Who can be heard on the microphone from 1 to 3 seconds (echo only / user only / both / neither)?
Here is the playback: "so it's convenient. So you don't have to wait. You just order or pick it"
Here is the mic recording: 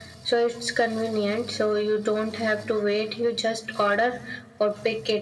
echo only